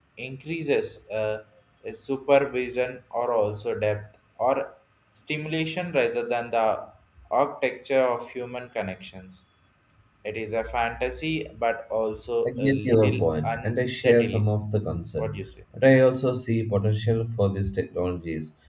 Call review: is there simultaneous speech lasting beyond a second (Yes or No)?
Yes